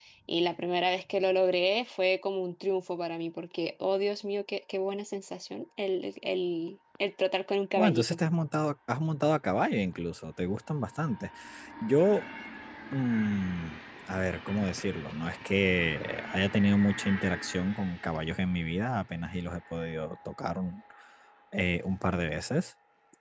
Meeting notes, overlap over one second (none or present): none